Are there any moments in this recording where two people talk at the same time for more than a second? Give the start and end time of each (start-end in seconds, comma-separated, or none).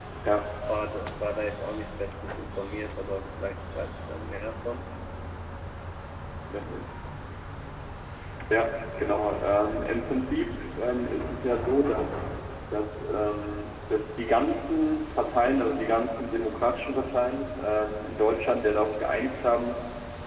none